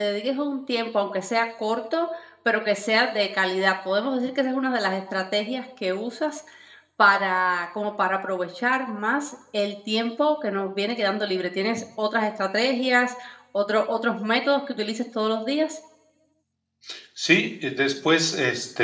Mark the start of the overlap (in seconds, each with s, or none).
none